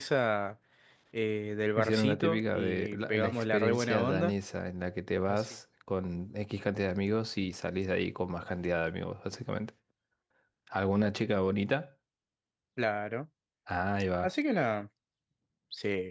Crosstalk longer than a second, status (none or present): present